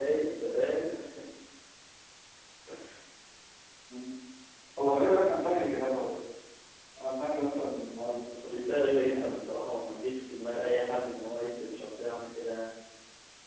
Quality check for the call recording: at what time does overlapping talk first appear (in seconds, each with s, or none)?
7.9 s